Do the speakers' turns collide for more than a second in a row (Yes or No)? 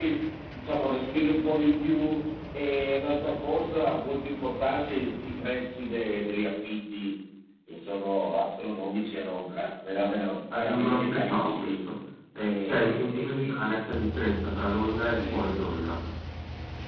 Yes